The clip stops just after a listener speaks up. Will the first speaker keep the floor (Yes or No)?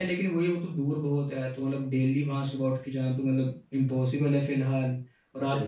Yes